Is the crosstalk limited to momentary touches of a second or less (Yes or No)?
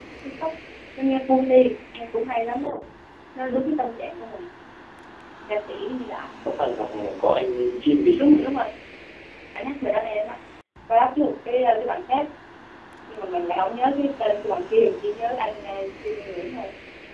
Yes